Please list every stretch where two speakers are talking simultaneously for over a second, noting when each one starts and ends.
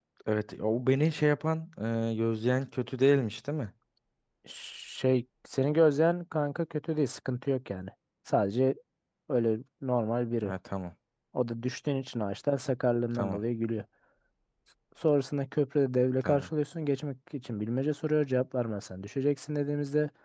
none

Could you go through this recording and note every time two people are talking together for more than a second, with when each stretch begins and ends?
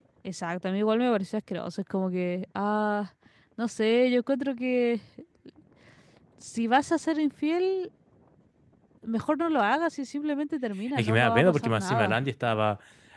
11.0-12.2

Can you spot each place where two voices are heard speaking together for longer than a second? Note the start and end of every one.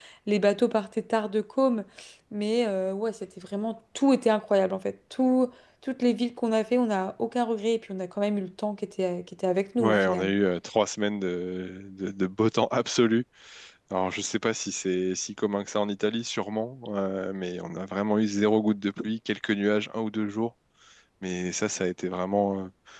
none

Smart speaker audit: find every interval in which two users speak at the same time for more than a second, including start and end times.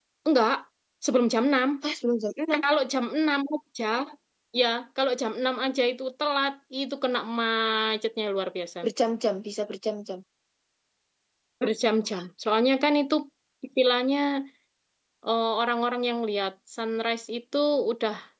none

